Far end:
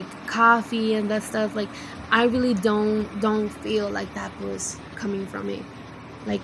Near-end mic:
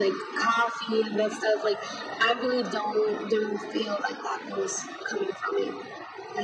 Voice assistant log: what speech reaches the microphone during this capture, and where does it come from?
echo only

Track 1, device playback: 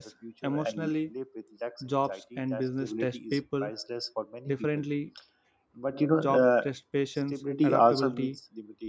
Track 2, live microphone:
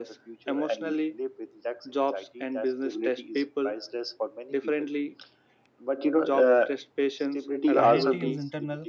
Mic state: both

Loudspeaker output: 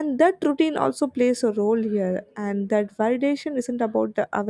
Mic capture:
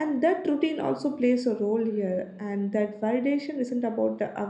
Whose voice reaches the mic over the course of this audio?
echo only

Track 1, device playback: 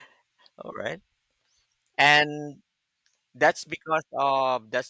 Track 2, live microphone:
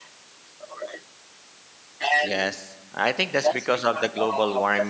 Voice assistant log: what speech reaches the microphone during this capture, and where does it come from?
both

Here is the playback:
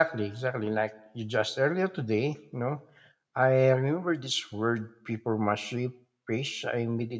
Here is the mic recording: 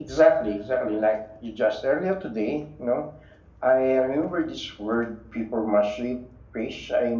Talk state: echo only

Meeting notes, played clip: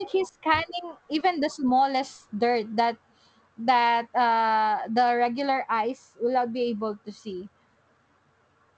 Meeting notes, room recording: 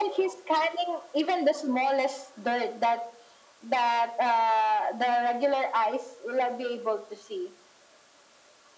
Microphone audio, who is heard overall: echo only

